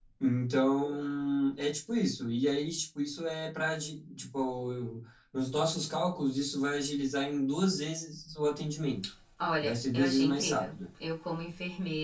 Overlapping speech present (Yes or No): Yes